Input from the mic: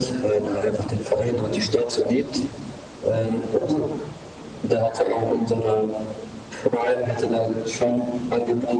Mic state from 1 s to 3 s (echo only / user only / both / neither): echo only